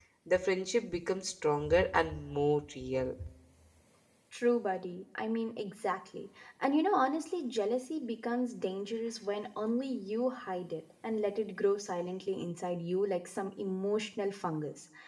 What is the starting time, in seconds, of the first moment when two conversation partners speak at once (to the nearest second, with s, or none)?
none